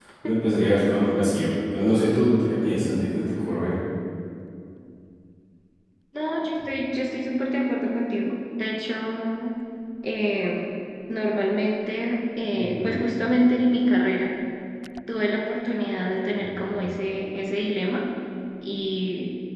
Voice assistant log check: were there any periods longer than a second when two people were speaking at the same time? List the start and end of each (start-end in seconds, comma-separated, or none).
none